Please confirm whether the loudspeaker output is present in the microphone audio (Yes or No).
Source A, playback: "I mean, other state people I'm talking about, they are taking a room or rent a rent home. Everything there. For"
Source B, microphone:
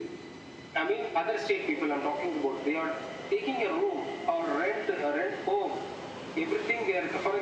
Yes